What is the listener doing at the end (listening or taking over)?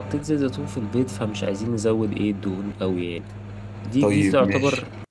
listening